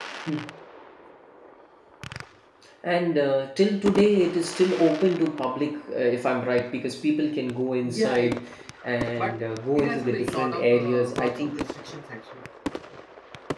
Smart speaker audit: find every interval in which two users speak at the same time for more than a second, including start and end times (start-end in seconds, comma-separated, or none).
9.2-11.5